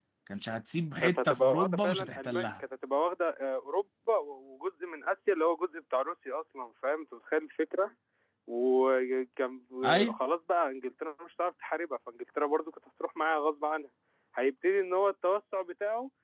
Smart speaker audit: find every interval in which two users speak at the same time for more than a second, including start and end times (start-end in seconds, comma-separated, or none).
1.0-2.6